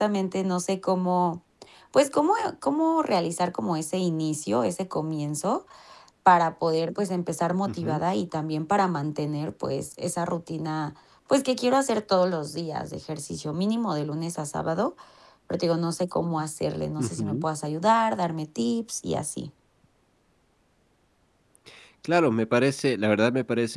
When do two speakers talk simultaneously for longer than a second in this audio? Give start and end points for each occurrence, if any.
none

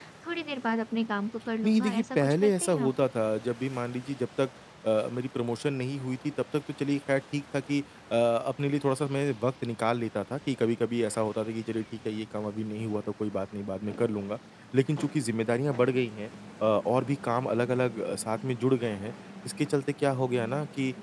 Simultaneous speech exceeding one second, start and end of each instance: 1.6-2.9

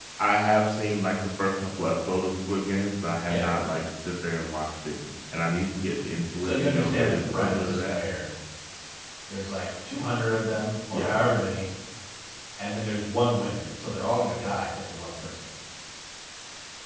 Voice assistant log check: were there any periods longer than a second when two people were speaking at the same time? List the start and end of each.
6.3-8.0

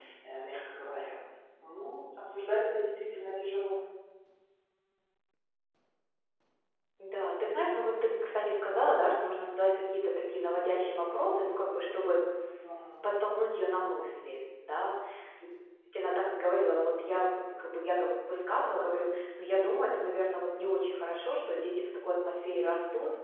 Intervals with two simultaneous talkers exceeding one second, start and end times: none

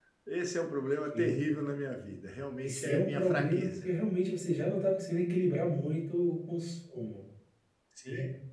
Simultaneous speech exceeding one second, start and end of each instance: 2.6-3.9

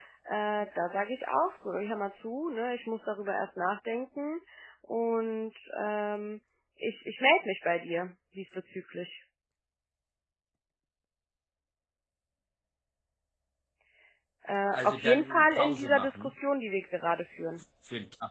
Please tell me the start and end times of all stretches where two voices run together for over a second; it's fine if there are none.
14.7-16.3

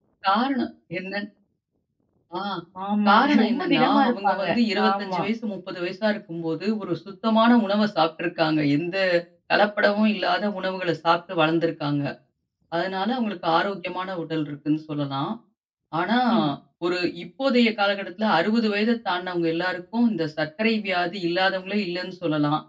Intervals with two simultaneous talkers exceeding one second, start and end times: 3.1-4.4

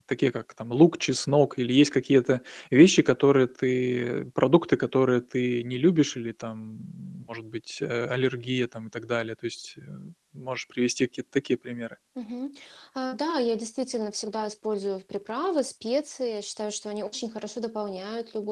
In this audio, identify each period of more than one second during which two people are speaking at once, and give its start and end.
none

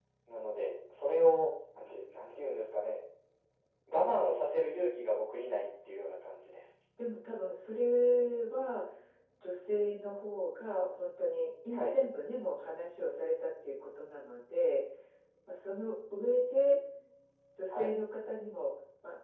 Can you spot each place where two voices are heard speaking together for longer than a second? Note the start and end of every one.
none

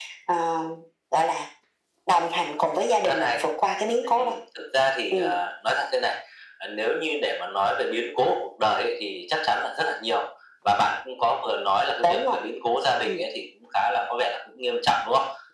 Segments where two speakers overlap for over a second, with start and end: none

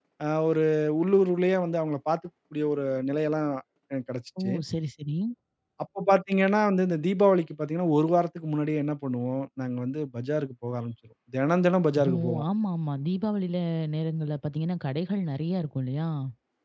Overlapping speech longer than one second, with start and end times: none

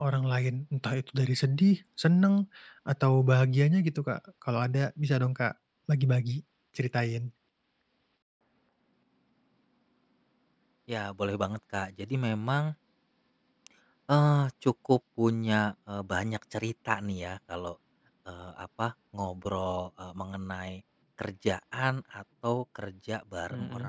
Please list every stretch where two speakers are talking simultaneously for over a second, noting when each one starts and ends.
none

